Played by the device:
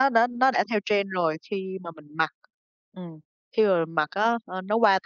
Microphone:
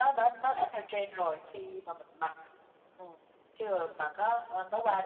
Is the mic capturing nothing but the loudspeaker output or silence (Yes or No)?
Yes